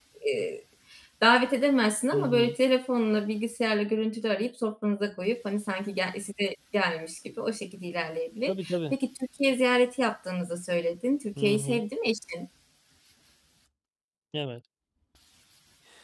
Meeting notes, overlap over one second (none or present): none